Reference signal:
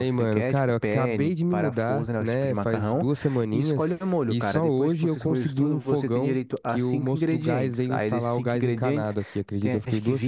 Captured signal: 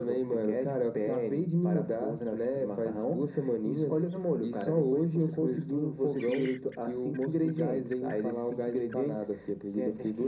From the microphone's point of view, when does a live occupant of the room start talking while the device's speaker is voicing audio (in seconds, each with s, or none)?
none